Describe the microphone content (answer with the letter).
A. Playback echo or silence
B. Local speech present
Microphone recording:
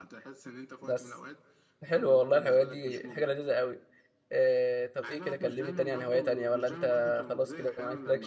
B